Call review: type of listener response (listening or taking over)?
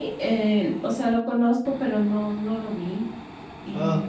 listening